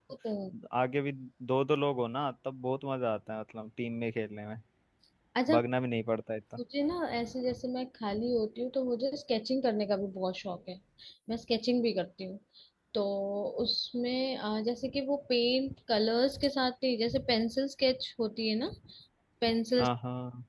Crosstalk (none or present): none